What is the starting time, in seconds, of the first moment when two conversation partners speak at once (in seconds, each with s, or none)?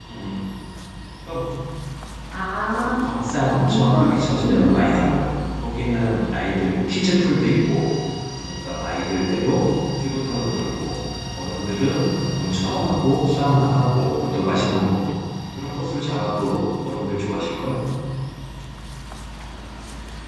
2.7 s